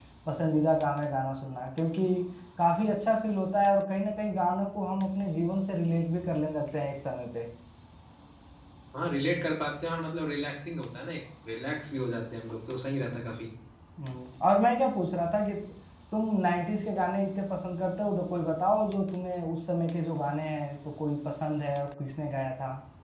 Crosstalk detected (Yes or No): No